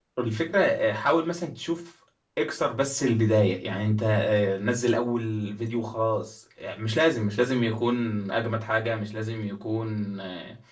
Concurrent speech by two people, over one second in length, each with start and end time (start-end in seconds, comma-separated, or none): none